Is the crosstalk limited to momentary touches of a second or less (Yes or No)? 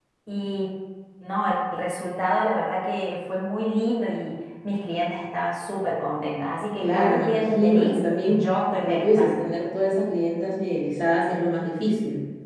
No